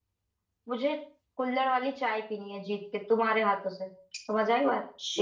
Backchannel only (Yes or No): No